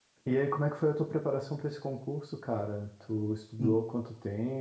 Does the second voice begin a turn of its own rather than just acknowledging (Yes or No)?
No